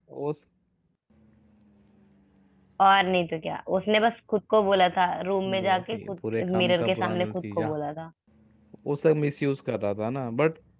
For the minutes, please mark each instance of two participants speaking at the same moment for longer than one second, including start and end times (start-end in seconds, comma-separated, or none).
5.6-7.7